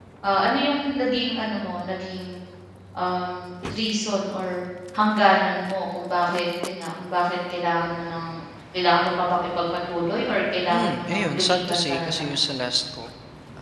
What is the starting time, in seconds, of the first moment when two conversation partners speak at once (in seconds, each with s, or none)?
10.7 s